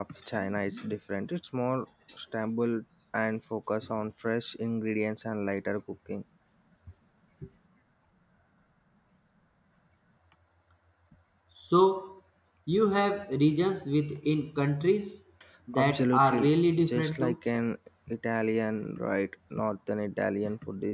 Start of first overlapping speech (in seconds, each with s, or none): 15.8 s